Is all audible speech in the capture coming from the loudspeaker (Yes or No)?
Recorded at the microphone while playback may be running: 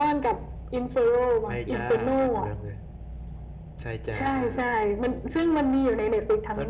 Yes